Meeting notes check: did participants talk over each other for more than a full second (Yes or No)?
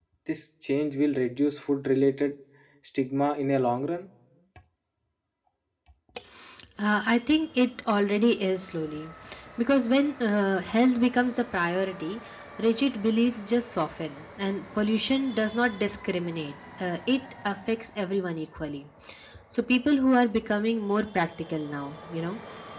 No